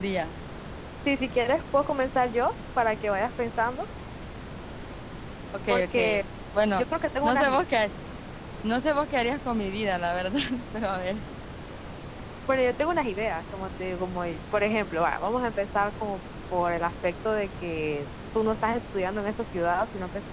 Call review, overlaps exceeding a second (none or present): none